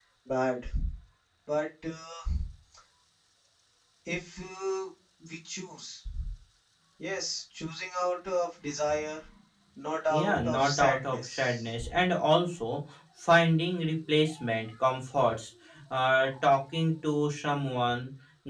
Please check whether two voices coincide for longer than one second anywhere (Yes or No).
Yes